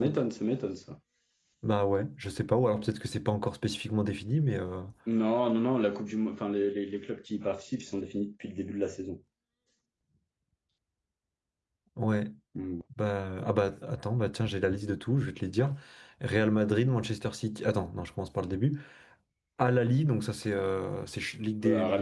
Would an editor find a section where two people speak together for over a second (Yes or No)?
No